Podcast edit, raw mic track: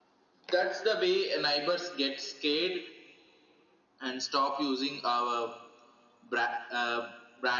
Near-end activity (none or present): none